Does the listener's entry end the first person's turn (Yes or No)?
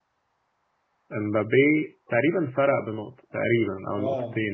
Yes